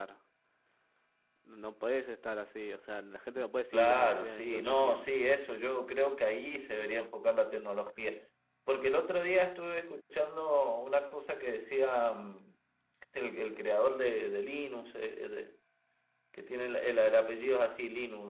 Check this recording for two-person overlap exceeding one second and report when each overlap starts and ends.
3.7-5.2

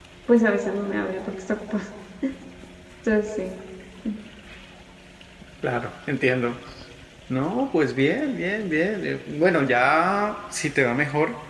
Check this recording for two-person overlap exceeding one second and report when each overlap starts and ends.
none

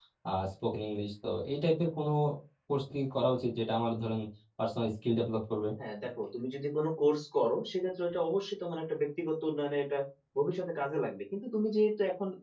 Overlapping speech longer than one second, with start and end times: none

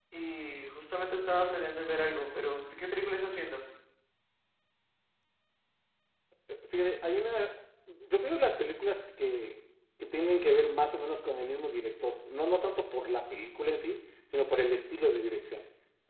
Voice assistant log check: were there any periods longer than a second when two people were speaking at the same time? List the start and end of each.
none

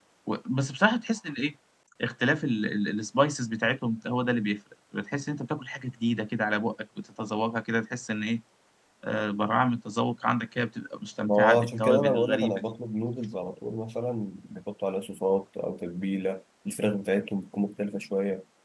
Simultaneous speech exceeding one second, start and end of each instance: 11.3-12.7

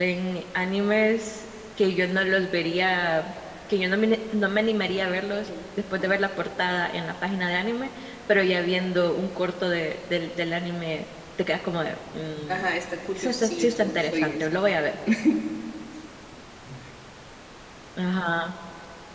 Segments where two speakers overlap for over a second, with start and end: 13.2-14.5

